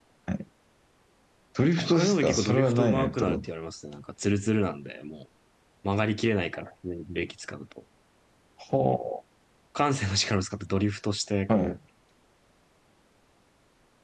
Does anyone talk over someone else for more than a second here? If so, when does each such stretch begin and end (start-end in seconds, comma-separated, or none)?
1.8-3.5